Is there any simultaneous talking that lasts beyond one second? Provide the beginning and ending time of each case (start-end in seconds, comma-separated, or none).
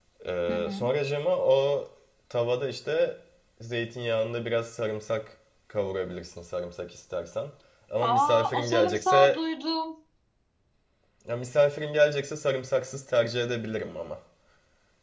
8.0-9.4